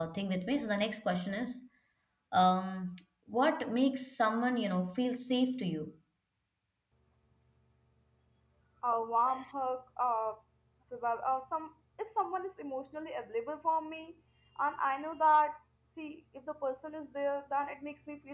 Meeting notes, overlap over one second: none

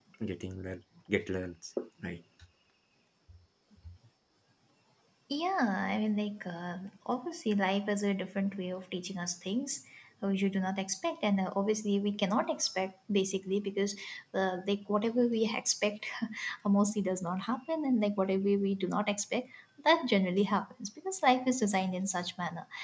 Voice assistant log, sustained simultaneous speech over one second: none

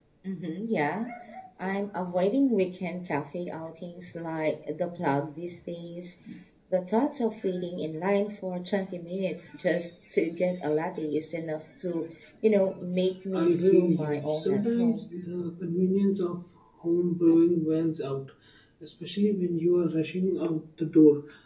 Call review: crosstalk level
present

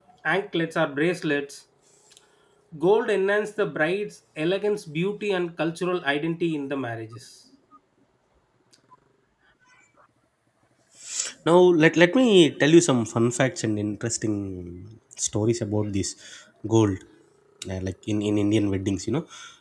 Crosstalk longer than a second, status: none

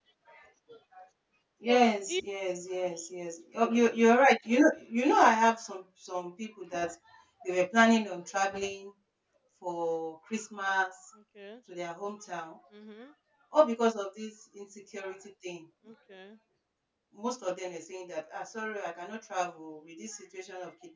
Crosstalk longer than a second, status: none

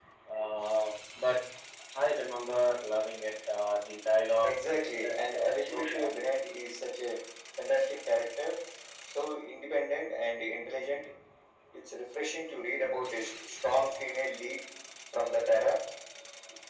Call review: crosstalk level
present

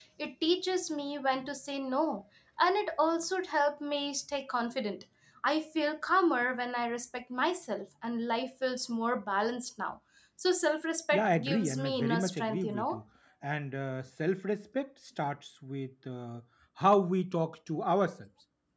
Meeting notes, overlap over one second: present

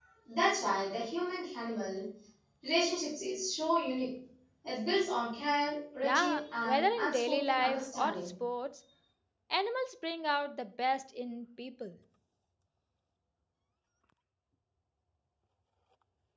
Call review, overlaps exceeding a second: present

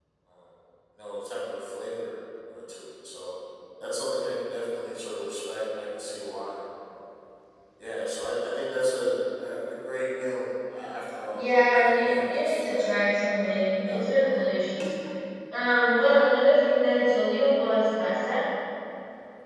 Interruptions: present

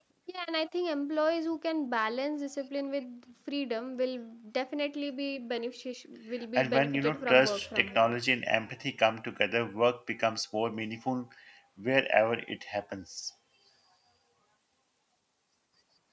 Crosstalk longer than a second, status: present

